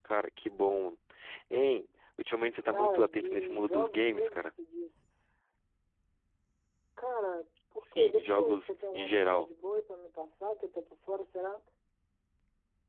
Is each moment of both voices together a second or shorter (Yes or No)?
No